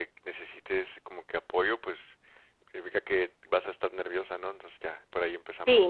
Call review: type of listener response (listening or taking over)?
taking over